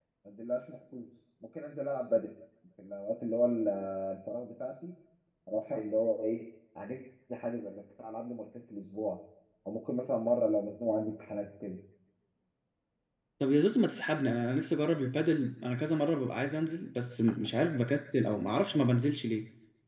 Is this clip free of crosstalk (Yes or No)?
Yes